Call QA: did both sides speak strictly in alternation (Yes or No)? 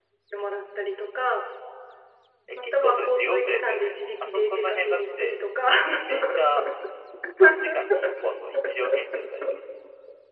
No